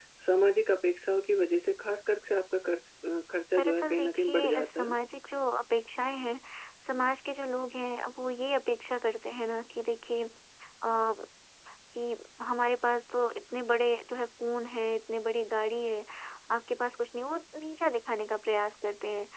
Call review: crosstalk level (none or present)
present